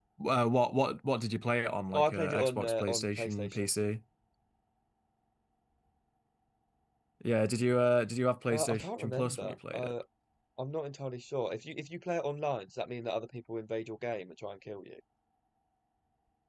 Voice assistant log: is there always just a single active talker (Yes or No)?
No